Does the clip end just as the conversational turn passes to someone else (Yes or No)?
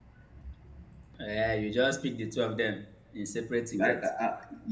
Yes